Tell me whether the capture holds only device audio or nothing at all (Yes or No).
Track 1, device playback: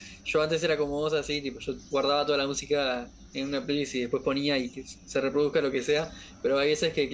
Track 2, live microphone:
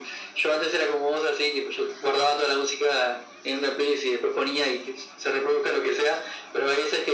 Yes